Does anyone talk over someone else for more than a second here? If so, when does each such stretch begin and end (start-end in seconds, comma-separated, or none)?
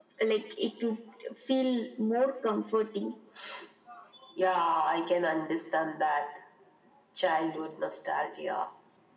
none